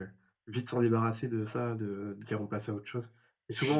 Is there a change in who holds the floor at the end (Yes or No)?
No